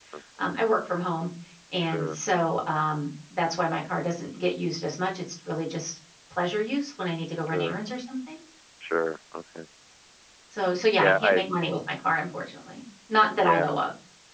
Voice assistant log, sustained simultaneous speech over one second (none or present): none